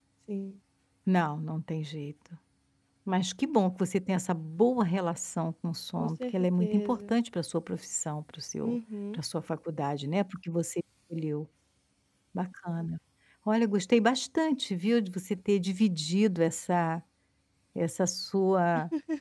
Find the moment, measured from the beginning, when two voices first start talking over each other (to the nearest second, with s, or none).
6 s